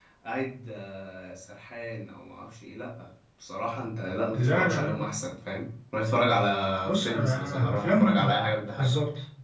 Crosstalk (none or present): present